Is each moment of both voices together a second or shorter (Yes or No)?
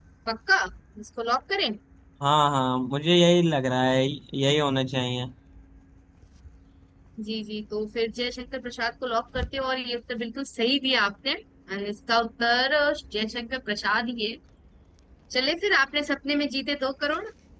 Yes